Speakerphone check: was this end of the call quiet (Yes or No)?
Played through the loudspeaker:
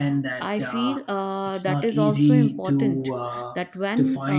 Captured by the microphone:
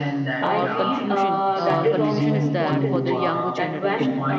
No